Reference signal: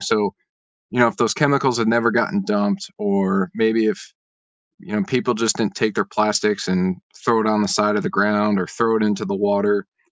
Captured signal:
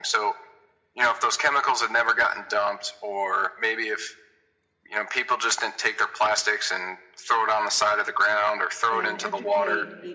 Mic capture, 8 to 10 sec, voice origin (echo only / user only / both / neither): both